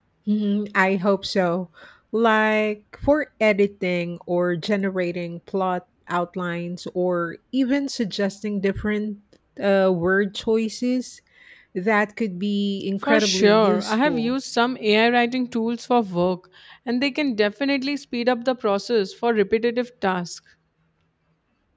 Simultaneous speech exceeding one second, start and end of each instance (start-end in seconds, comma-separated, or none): 13.1-14.3